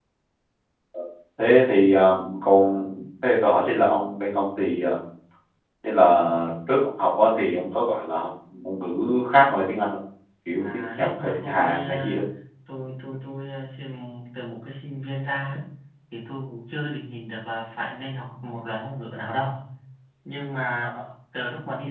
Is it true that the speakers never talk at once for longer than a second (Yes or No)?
No